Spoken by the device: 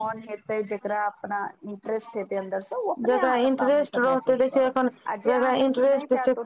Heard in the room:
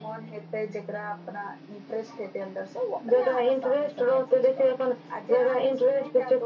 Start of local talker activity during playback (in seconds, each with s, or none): none